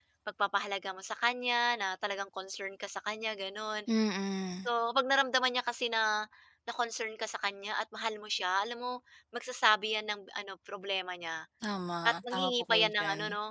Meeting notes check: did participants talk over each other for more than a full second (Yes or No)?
Yes